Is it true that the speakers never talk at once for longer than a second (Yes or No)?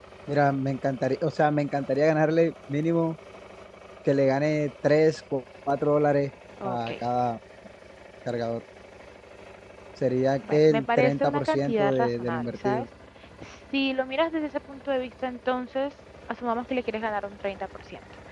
No